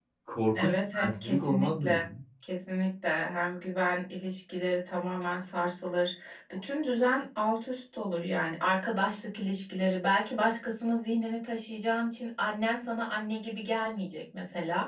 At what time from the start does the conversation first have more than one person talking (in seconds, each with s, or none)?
0.5 s